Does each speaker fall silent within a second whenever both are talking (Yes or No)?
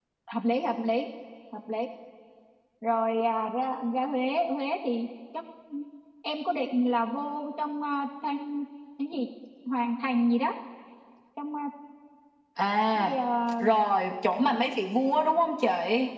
Yes